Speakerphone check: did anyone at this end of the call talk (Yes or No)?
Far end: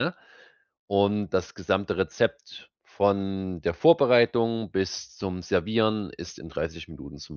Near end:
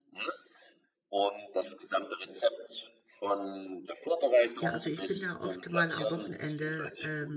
Yes